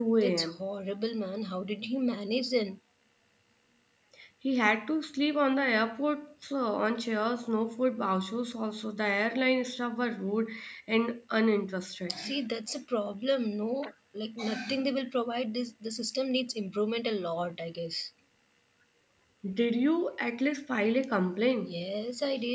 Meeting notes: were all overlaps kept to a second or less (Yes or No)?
Yes